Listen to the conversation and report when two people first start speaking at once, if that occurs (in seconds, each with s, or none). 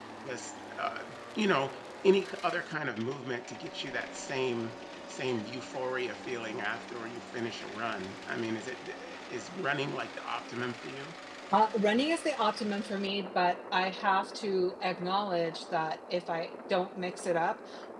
none